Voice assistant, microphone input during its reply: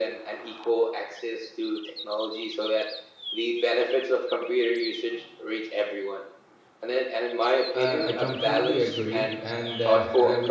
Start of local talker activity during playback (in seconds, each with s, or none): 7.7 s